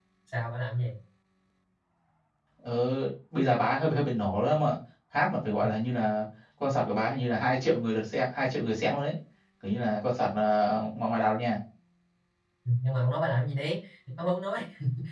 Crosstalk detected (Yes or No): No